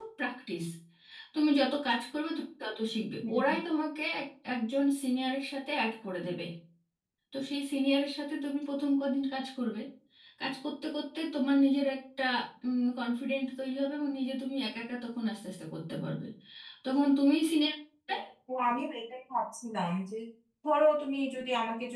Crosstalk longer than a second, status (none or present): none